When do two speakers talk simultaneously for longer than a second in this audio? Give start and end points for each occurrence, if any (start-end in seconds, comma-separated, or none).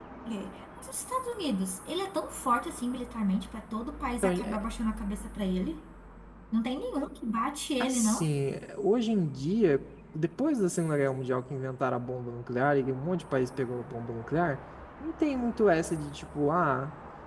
none